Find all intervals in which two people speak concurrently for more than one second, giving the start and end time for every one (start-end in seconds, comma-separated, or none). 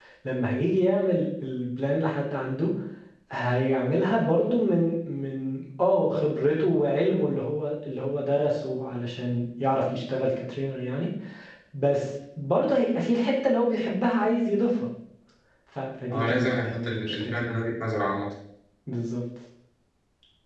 16.1-17.5